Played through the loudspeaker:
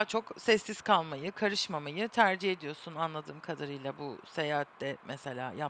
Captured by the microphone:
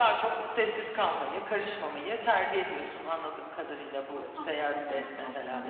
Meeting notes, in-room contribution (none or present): present